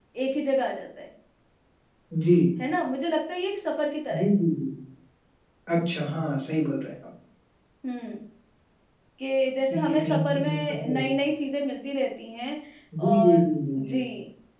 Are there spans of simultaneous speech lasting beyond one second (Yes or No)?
Yes